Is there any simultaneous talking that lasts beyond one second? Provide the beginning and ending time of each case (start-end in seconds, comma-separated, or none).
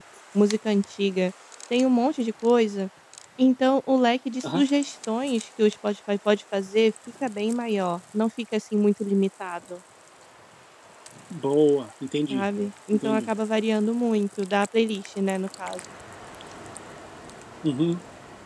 none